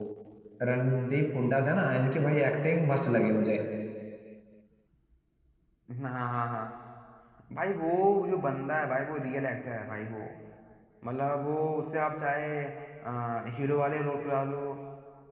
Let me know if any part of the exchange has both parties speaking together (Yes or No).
No